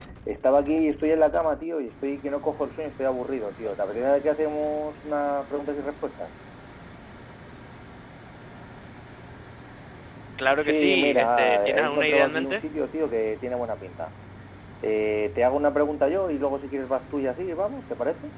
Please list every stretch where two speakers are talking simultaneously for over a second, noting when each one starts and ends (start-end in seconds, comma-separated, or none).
10.6-12.6